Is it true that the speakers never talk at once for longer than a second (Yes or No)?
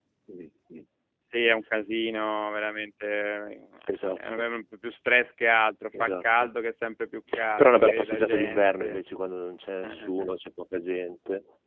No